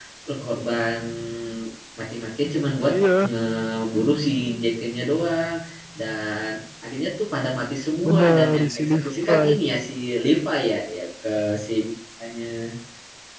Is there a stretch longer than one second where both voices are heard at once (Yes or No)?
Yes